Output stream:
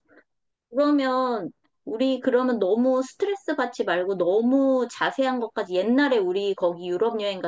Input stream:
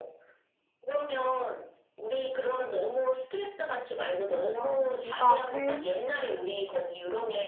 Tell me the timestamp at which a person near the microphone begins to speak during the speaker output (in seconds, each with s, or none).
4.2 s